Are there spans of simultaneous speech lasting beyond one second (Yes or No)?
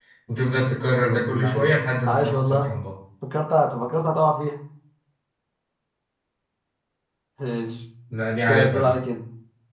Yes